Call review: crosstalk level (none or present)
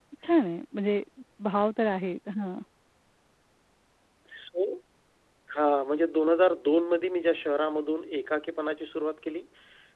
none